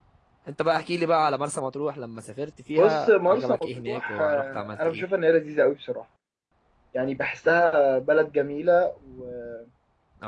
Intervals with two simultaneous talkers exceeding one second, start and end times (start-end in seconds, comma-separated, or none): 2.8-5.0